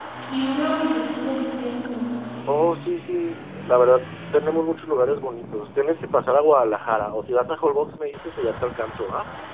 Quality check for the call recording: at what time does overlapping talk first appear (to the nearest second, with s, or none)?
none